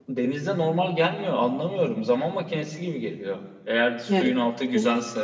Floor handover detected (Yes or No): No